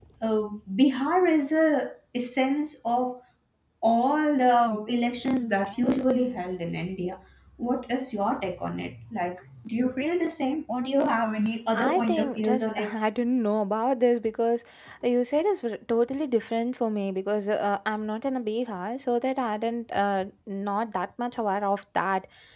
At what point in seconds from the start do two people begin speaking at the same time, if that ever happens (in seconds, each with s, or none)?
11.7 s